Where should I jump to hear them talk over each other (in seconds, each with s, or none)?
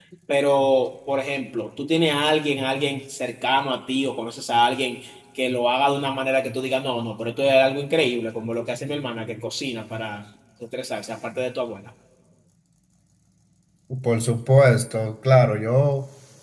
none